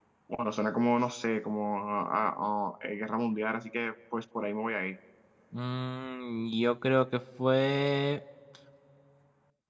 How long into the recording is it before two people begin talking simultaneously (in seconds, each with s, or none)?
none